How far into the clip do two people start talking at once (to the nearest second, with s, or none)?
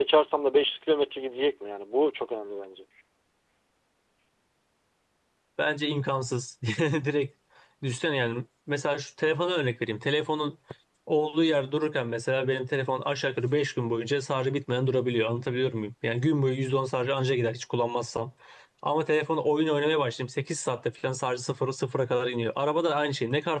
none